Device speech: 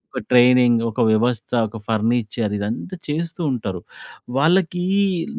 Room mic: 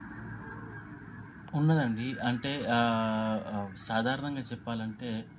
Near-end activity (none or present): present